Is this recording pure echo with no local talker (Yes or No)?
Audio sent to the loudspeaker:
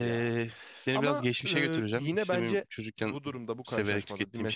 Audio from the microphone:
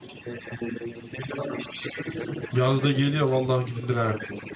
No